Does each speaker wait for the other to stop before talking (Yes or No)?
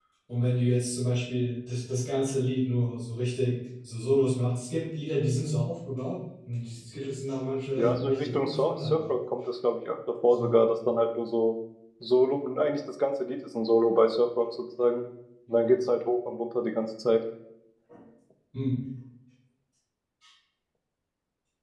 No